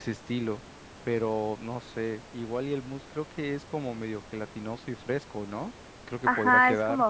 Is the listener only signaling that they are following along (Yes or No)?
No